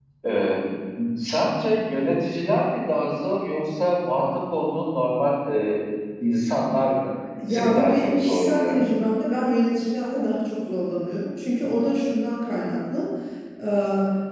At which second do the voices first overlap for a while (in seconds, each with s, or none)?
7.4 s